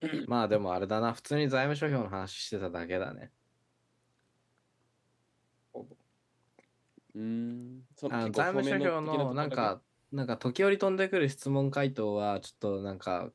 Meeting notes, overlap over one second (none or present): present